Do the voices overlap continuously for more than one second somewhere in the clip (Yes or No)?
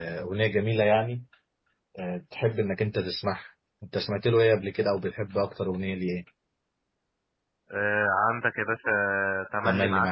No